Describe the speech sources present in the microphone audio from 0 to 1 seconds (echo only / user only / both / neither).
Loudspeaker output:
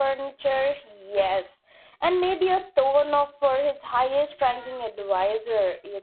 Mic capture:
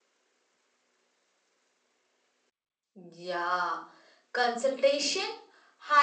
neither